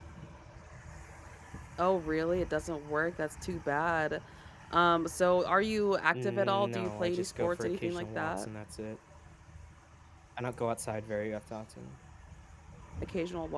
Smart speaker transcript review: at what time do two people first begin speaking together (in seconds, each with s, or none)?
6.1 s